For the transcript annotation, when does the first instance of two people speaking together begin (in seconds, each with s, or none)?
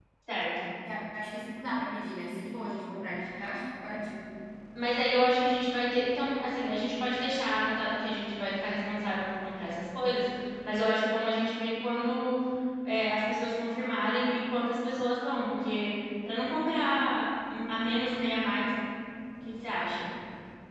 none